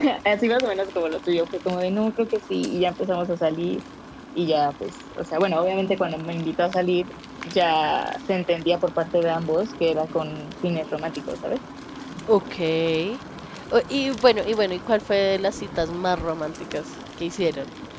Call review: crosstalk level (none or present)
none